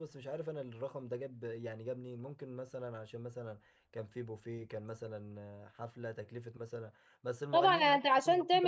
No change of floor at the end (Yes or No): No